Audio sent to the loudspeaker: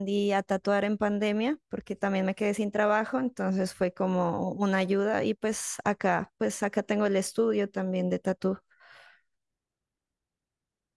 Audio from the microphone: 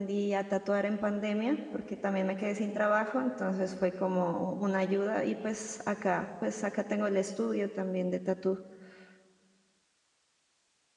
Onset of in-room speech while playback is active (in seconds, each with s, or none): none